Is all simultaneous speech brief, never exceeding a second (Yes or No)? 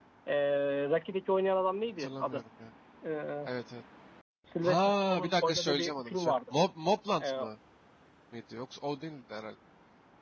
No